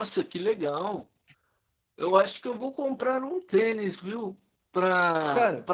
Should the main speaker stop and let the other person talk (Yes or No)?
No